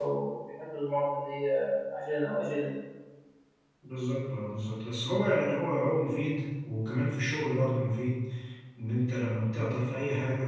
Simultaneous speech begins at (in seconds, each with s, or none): none